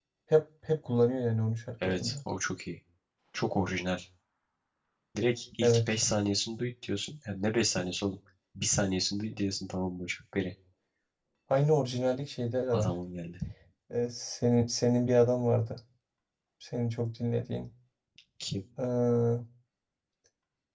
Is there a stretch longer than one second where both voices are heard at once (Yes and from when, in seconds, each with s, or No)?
No